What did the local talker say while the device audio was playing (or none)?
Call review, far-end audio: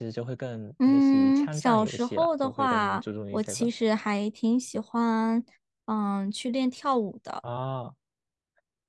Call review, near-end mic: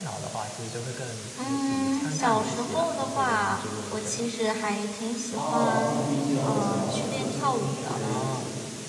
哦，PUBG 哦，我知道，我知道，和平精英就类似于是，